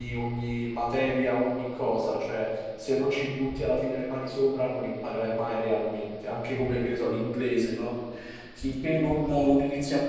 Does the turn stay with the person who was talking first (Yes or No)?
Yes